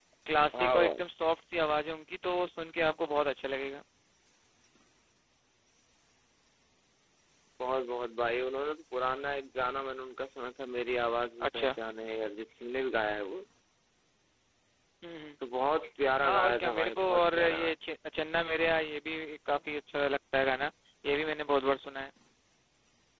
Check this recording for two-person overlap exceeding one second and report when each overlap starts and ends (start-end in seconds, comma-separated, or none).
16.2-17.7